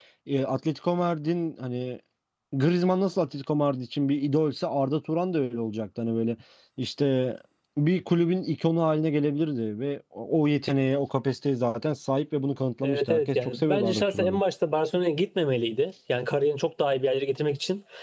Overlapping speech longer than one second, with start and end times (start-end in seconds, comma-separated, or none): 12.8-14.4